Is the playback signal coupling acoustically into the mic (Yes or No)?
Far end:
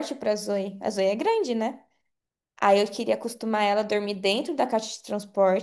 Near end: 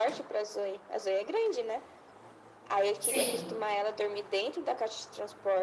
Yes